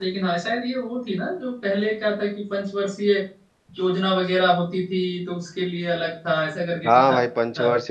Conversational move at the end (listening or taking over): taking over